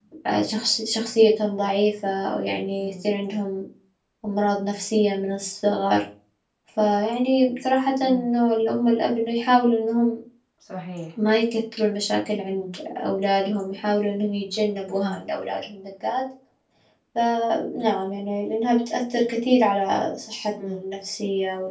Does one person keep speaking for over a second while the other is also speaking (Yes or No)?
No